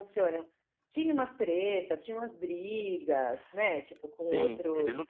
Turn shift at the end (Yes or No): Yes